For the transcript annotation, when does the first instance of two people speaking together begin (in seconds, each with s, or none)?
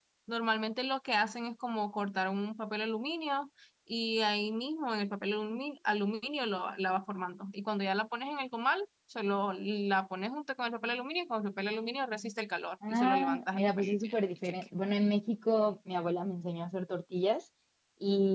12.8 s